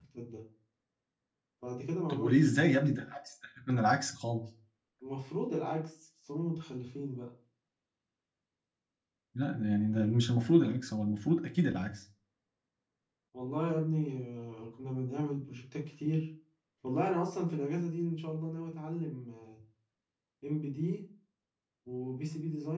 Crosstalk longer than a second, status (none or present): none